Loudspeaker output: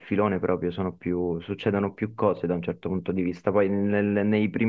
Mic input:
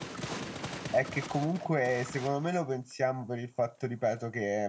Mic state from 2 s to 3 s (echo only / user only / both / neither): user only